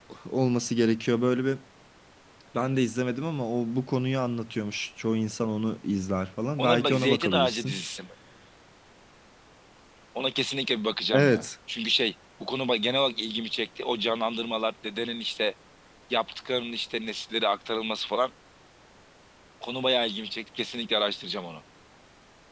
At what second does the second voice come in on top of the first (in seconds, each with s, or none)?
6.6 s